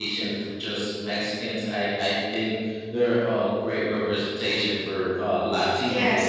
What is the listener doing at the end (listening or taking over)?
taking over